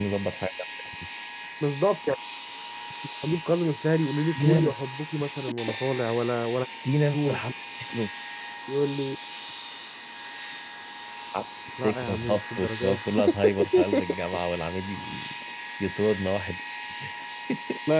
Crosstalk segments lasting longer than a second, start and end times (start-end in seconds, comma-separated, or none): 11.8-13.2